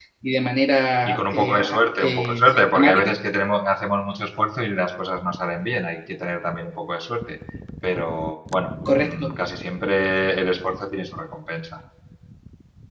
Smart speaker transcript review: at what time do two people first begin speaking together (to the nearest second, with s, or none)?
1 s